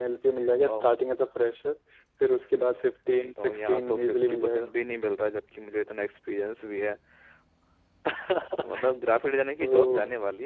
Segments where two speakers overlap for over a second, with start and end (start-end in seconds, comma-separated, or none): 3.4-4.7